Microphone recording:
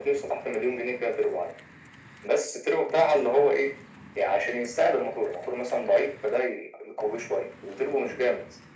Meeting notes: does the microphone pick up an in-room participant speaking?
No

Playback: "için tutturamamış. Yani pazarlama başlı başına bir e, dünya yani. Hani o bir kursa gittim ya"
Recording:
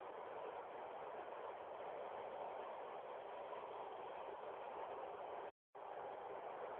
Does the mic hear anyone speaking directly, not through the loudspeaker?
No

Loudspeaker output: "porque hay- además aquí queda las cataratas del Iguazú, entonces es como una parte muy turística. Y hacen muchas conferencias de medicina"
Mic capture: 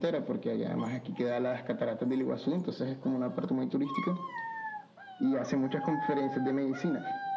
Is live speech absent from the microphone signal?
Yes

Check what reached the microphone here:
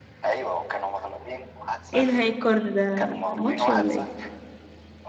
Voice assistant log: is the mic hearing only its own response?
No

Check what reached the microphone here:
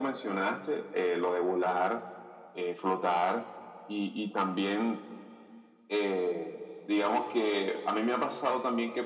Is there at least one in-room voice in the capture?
No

